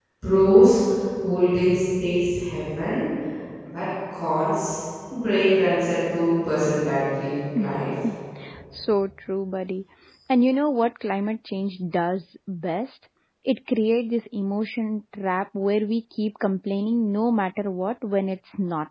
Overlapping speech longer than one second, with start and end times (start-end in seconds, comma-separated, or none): none